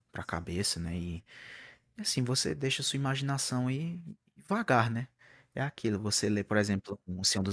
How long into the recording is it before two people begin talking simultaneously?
none

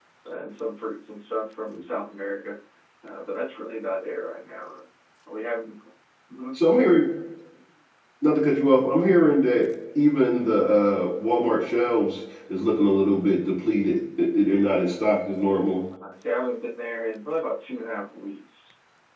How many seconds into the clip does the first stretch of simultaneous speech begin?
none

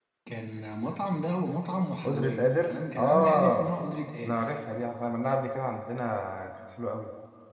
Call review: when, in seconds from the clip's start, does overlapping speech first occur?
2.0 s

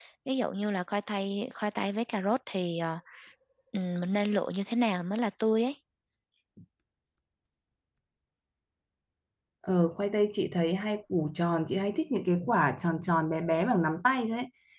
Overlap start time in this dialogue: none

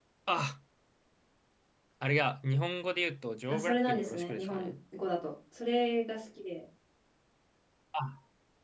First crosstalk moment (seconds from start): 3.5 s

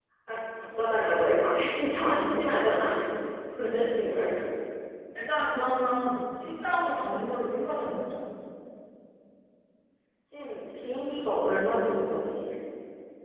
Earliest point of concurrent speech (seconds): none

